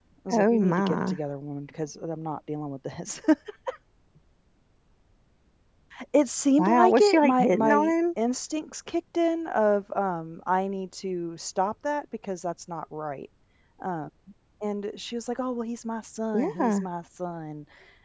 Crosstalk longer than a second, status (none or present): present